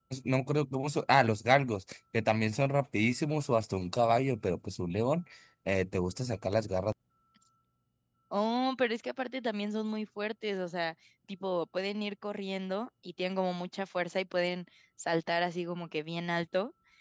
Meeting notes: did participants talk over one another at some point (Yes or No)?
No